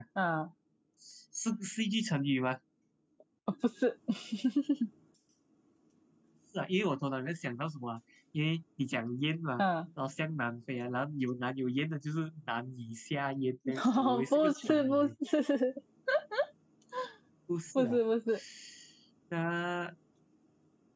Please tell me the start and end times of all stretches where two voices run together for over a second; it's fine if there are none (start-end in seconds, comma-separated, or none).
13.8-15.1